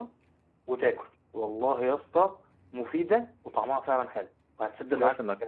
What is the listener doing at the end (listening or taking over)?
taking over